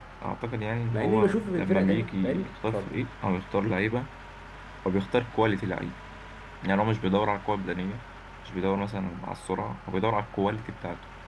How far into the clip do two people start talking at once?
0.9 s

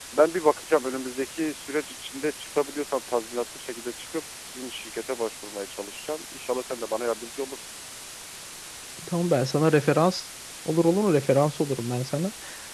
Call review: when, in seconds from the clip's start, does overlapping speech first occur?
none

